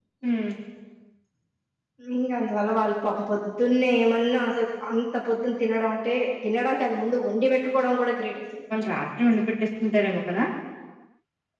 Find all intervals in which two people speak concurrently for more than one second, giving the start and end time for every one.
none

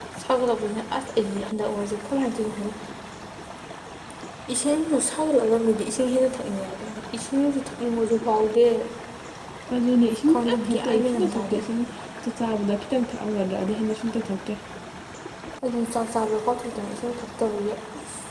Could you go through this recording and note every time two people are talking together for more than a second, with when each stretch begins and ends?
10.3-11.6

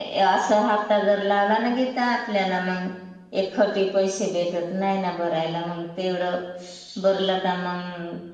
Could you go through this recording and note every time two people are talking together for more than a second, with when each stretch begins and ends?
none

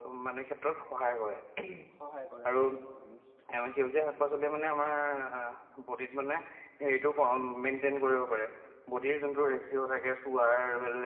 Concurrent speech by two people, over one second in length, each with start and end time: none

